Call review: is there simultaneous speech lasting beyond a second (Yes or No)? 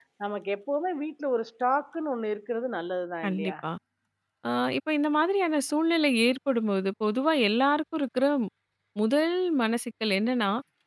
No